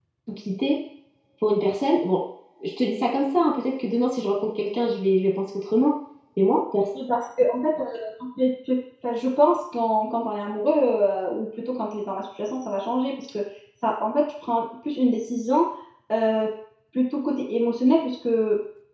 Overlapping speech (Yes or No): No